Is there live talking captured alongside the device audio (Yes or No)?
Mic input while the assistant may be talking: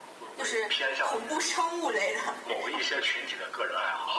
Yes